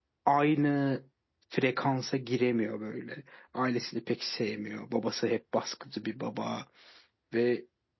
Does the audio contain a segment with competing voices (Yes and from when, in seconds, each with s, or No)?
No